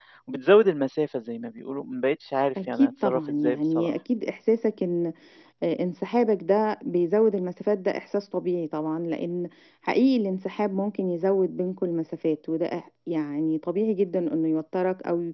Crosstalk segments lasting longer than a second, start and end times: 2.7-3.9

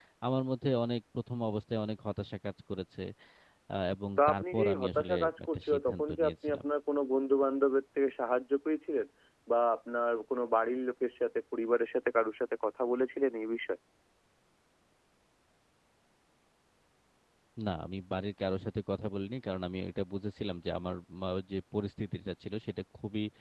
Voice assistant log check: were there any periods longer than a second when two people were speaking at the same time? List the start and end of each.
4.2-6.6

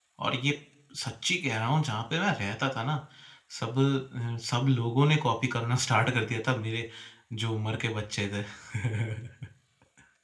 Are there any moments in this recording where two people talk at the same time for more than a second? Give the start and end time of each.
none

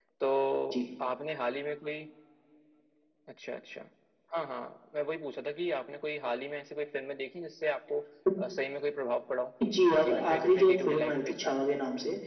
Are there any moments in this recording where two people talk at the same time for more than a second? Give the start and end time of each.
10.0-11.3

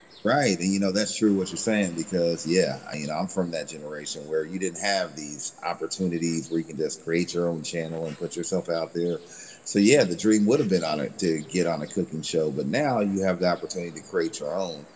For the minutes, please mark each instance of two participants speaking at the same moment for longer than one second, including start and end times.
none

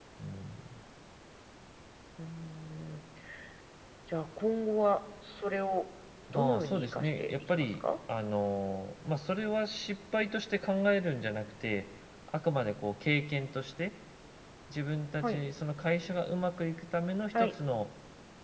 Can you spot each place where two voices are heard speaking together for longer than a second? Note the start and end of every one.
6.3-7.8

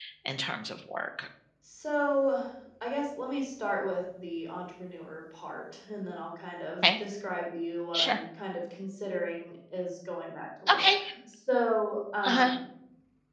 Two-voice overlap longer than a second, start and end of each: none

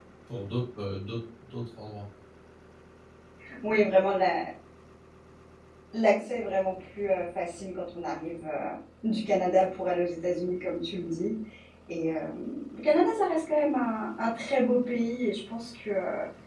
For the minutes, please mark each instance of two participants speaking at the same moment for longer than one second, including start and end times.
none

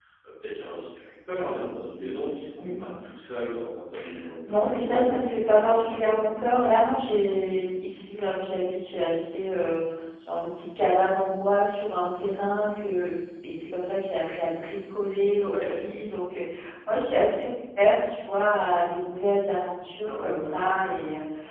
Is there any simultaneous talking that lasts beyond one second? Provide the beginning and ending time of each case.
4.5-6.3

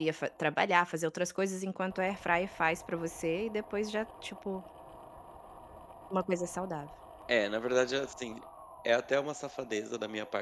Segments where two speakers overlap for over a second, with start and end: none

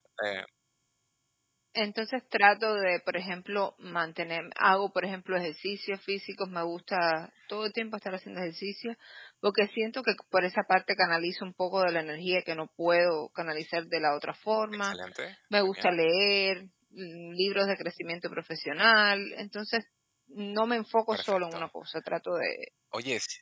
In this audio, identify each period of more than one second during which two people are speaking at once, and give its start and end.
none

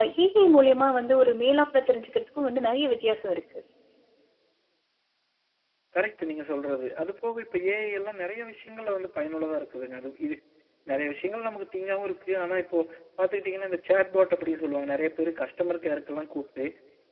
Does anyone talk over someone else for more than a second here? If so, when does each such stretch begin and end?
none

